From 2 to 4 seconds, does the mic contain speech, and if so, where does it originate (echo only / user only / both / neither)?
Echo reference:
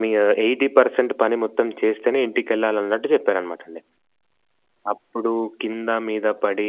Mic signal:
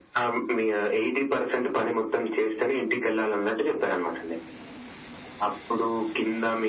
echo only